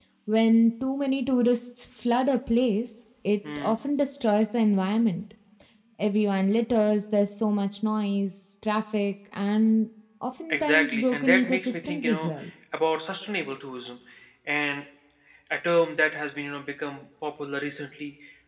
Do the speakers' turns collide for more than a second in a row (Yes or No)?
Yes